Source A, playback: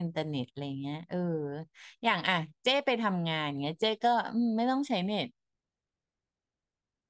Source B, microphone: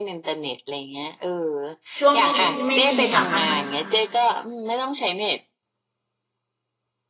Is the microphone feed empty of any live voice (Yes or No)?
No